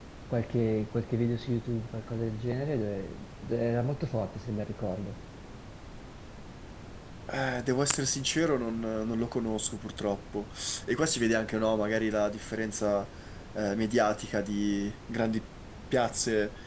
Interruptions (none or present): none